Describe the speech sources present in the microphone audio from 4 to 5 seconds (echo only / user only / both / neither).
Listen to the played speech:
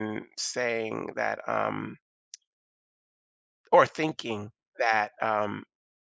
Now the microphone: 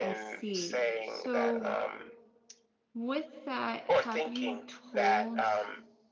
both